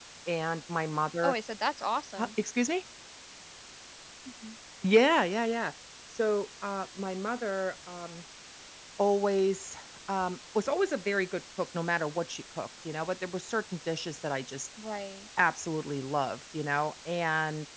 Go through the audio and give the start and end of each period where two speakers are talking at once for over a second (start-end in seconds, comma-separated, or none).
none